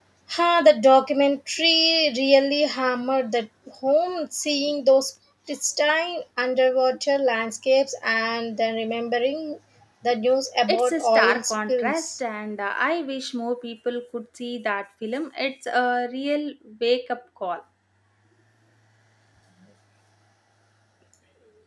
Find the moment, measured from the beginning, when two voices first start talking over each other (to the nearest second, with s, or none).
11 s